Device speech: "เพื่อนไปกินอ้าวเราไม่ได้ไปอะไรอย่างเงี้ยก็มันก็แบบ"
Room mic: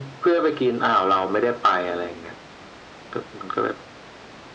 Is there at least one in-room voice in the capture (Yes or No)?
No